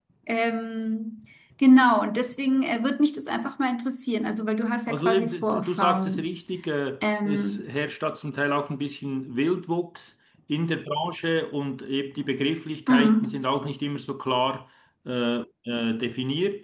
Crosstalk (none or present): present